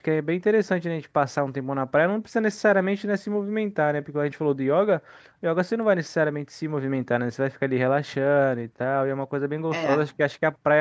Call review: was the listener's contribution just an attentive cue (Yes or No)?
Yes